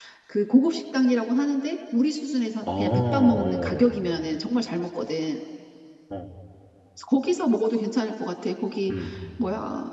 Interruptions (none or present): present